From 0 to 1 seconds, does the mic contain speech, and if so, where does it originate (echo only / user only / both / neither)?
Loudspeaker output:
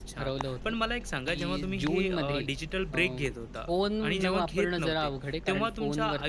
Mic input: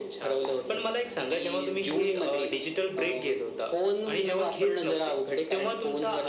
echo only